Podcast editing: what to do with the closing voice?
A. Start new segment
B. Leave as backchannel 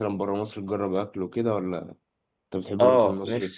A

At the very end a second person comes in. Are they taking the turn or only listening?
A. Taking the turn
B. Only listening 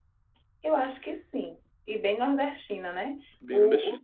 B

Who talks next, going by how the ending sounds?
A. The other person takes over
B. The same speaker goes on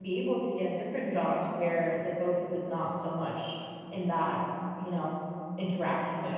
A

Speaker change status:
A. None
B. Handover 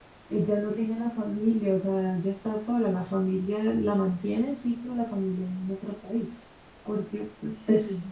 A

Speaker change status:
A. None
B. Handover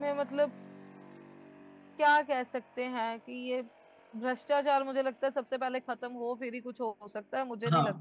B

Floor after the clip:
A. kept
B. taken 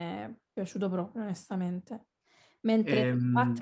A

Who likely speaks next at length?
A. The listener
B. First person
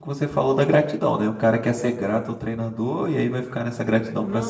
A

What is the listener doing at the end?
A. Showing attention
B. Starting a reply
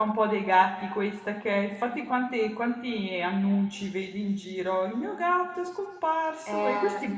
A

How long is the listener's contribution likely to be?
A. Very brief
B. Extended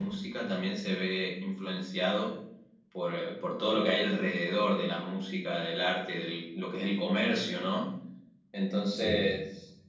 A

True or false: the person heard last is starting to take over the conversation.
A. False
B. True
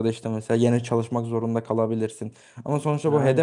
A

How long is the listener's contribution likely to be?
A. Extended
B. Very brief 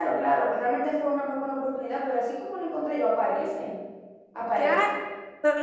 A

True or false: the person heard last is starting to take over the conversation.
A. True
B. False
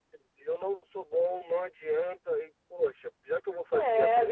A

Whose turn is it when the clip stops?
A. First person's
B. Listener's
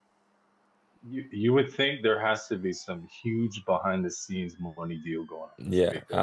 B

